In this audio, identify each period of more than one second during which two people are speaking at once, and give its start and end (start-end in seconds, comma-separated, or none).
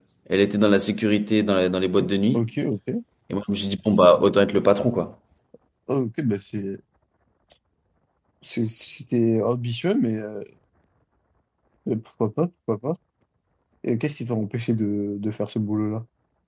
none